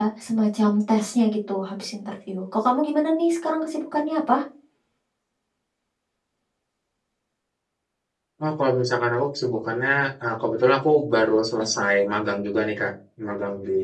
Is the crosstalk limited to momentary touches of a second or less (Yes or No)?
Yes